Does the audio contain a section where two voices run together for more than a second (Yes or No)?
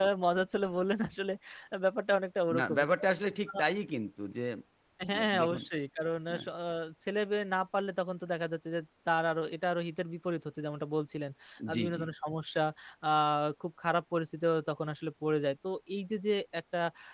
No